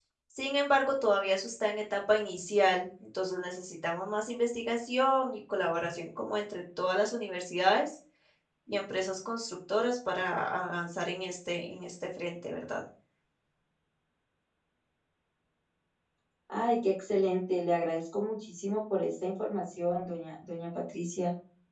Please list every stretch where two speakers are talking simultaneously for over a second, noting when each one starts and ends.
none

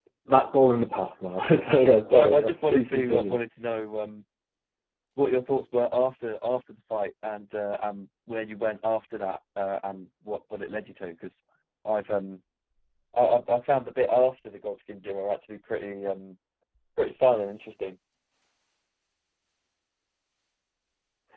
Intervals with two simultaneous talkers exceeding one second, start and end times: 2.1-3.4

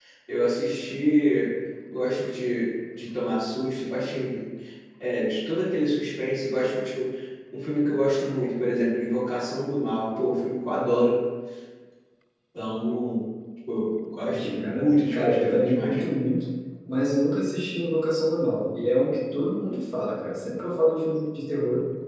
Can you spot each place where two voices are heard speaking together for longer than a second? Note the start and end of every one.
14.3-16.0

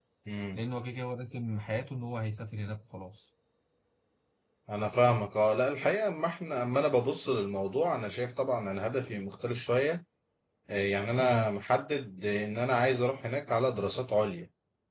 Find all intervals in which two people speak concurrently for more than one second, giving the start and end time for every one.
none

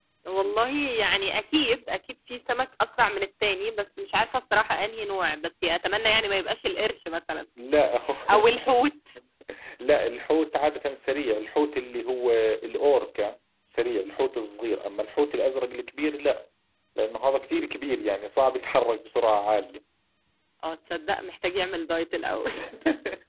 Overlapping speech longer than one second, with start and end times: none

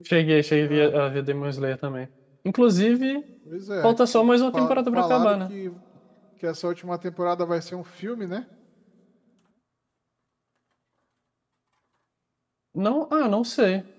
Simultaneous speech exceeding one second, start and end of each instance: 3.8-5.5

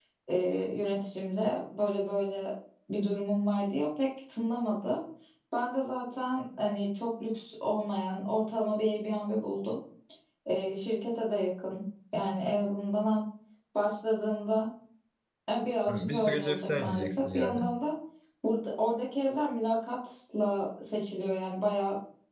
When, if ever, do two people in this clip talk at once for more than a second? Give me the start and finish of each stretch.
15.9-17.6

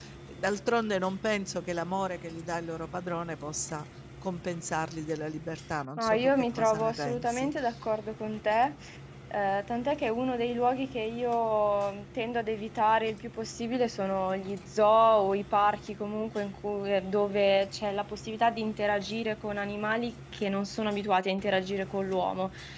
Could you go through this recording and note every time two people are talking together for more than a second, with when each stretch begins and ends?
6.0-7.5

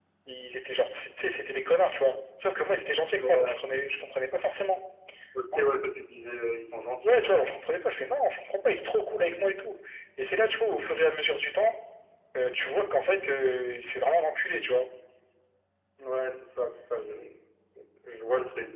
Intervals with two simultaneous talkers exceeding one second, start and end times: none

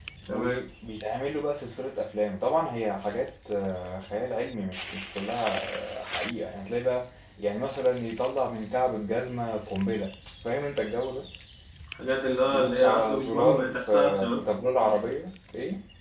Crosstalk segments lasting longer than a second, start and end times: 12.5-14.4

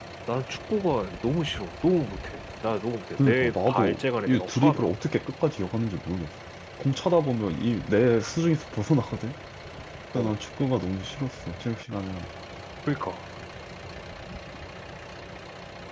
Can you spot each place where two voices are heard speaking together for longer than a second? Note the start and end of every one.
3.2-4.9

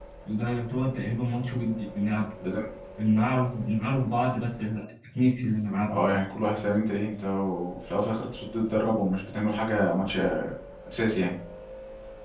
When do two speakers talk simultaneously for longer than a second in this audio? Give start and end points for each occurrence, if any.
none

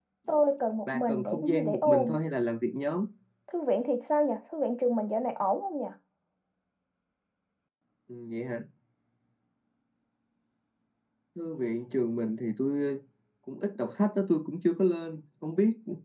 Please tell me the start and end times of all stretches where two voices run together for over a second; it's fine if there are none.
0.9-2.2

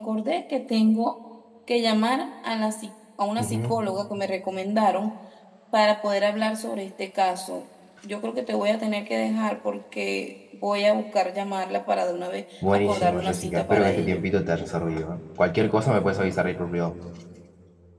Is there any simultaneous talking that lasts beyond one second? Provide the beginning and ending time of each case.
12.7-14.2

